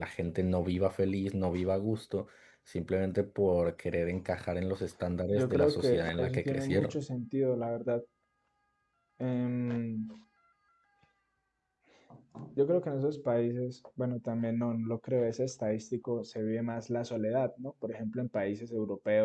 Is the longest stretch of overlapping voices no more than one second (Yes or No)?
No